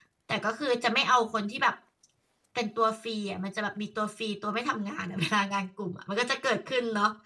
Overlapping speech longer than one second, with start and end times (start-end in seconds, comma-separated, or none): none